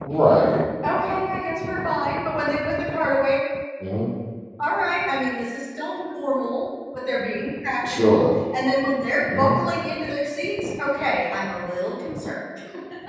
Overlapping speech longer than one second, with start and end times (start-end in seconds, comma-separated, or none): none